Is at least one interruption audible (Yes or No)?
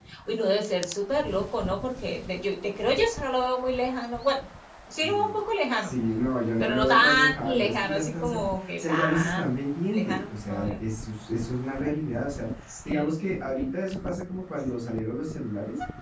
Yes